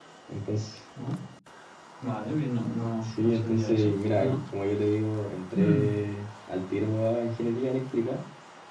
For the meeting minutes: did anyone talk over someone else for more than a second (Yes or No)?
Yes